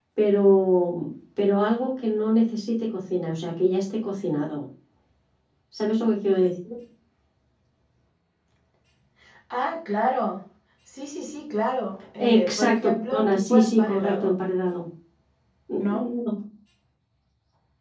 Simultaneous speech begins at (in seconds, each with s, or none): 12.4 s